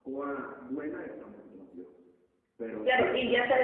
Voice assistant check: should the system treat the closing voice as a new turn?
Yes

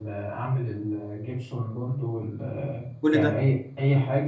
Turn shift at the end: No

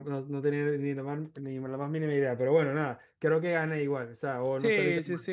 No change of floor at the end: No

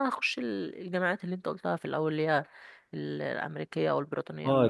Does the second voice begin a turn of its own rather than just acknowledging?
Yes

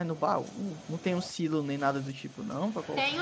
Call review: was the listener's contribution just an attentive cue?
No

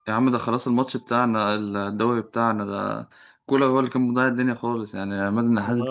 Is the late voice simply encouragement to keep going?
Yes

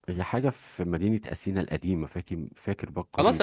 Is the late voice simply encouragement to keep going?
No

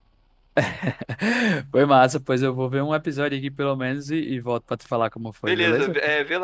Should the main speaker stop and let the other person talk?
Yes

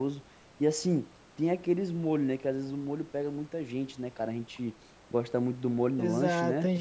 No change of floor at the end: No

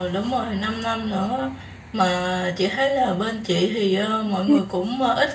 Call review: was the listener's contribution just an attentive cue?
Yes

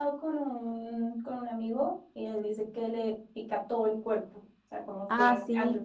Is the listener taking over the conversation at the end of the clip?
No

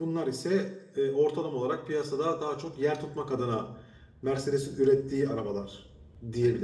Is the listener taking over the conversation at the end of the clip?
Yes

